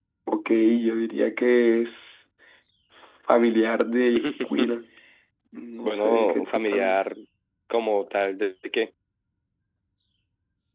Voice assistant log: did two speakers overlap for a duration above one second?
Yes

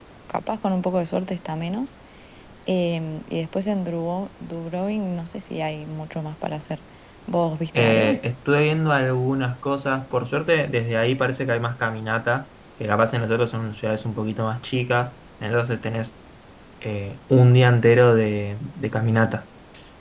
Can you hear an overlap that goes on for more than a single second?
No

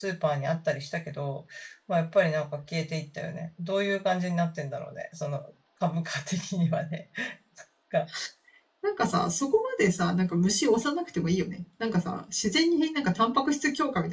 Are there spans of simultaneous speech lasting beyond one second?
No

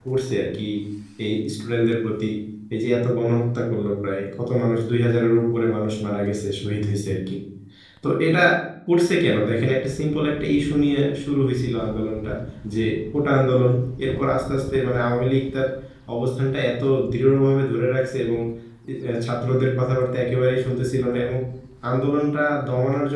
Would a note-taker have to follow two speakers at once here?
No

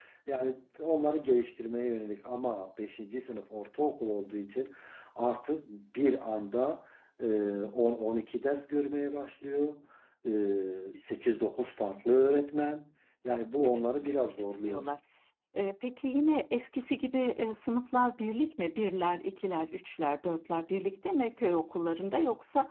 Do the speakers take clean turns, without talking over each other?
No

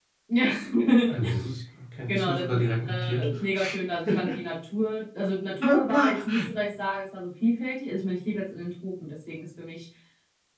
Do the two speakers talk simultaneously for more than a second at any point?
Yes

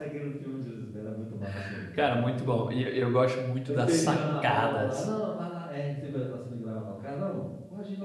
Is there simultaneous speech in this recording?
Yes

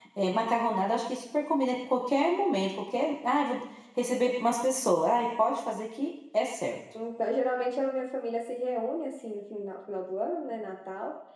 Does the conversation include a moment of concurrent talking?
No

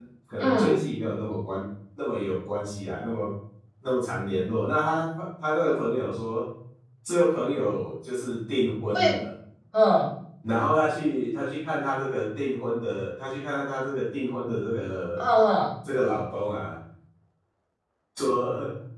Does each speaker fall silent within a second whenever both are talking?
Yes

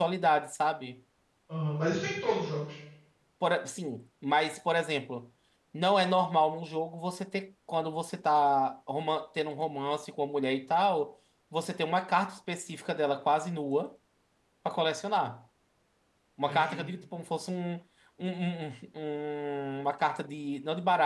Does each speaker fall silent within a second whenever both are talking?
Yes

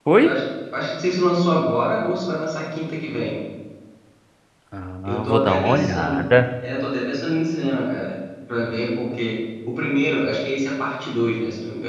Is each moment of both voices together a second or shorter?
No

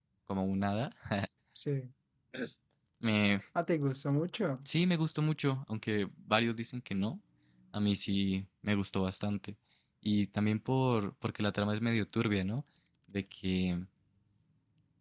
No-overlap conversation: Yes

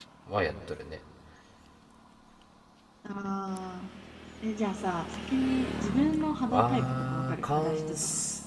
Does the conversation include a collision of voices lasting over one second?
Yes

